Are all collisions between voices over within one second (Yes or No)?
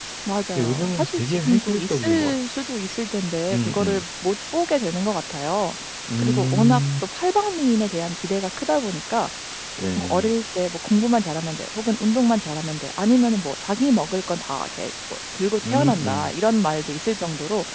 No